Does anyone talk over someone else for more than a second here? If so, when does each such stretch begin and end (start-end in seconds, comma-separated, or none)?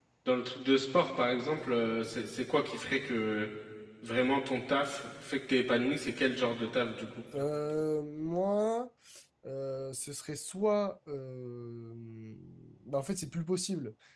none